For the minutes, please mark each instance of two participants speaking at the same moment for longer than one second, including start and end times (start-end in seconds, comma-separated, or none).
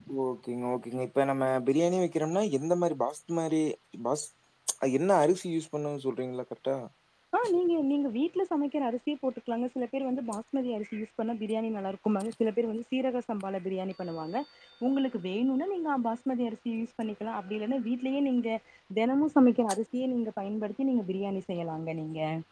none